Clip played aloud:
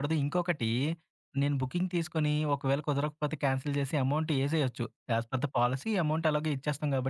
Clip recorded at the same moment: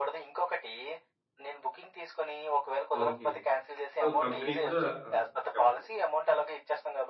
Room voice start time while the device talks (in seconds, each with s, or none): 3.0 s